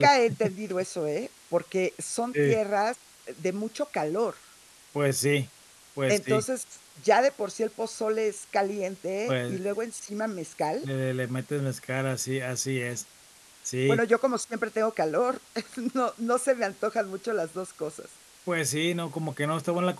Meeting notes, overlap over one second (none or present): none